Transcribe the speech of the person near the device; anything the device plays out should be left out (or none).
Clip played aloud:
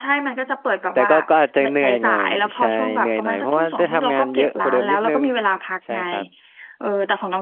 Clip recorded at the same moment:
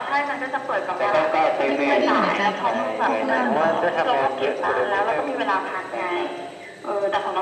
ไม่ค่อยได้เหนื่อยใจกับพวกพวกเรื่องเอ่อ